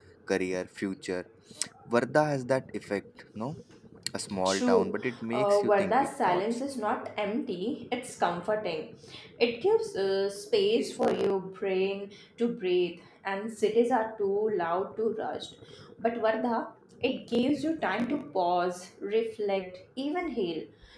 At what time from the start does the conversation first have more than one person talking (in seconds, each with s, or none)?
4.5 s